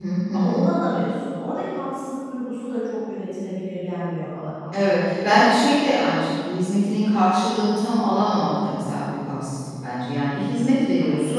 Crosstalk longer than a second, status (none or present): none